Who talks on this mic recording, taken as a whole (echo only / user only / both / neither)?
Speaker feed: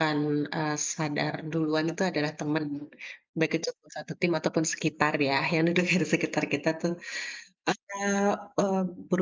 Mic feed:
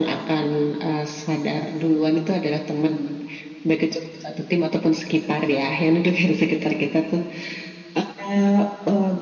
echo only